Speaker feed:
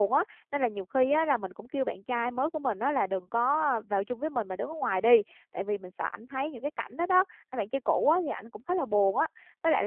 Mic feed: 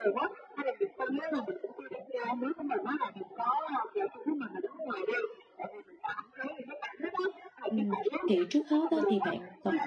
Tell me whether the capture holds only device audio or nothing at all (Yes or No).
No